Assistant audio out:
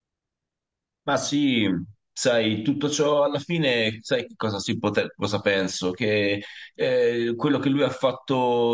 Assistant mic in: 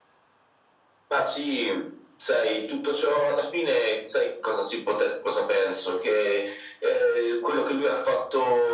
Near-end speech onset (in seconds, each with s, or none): none